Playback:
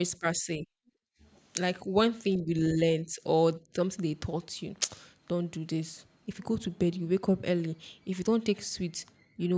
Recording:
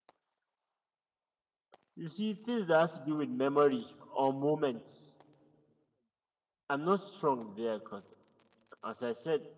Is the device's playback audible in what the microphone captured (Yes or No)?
No